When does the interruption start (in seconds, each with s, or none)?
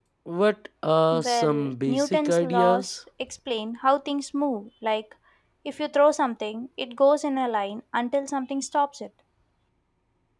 1.1 s